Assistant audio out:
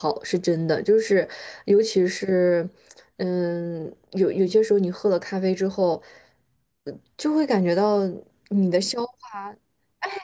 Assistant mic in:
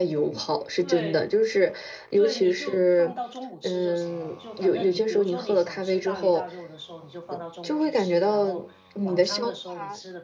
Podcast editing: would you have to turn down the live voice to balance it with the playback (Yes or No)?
No